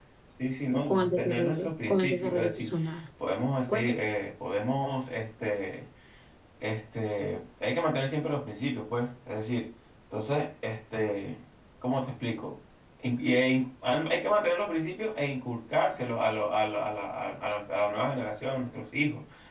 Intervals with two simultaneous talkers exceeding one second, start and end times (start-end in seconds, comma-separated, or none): 0.8-2.7